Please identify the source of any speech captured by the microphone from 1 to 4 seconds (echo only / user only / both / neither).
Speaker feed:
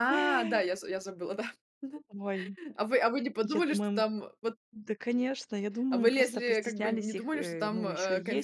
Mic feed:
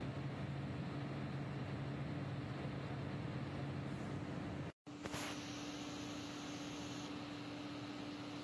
neither